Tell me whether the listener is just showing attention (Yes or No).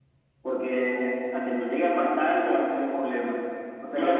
No